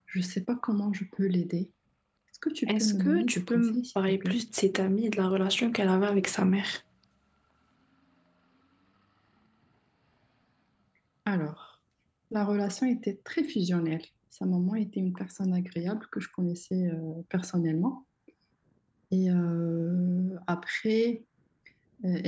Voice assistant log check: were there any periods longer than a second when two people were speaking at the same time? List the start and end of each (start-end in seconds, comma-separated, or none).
2.7-4.4